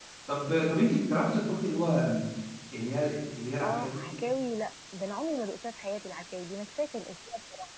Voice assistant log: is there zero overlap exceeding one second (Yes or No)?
Yes